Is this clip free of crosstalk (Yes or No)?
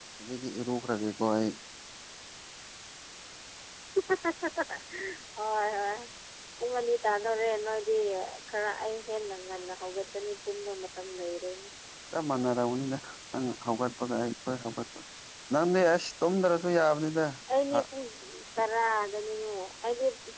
Yes